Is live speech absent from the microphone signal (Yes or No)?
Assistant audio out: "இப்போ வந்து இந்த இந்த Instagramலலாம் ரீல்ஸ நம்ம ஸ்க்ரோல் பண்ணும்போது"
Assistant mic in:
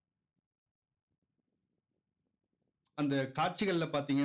No